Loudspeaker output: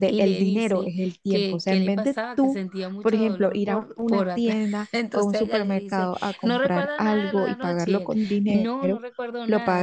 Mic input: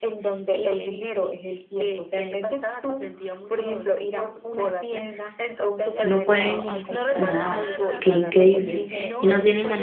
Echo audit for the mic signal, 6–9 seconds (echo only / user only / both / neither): both